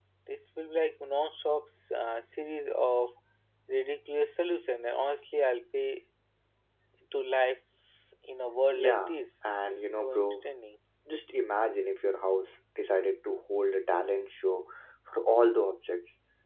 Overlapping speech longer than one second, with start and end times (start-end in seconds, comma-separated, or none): 8.7-10.4